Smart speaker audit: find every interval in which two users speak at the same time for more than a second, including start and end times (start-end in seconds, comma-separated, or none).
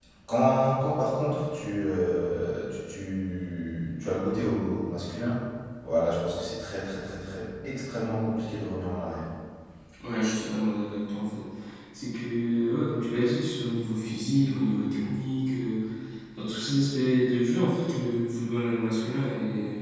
none